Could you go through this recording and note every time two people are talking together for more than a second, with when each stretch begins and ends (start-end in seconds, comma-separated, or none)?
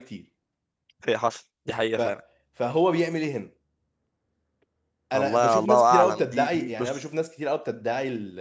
5.1-7.0